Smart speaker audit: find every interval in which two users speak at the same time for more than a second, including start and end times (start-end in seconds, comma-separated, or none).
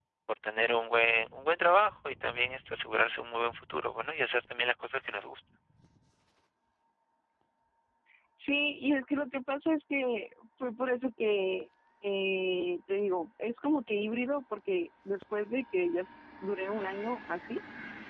none